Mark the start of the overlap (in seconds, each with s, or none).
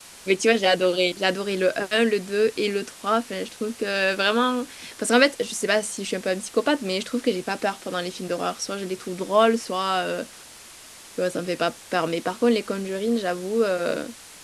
none